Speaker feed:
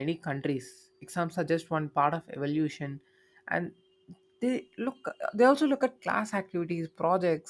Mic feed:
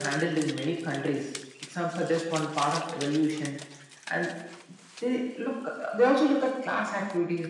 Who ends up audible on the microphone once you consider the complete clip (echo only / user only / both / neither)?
echo only